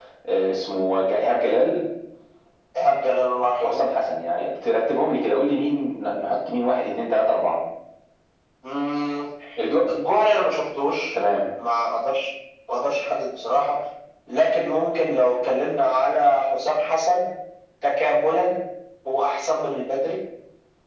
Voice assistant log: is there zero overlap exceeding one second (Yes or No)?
Yes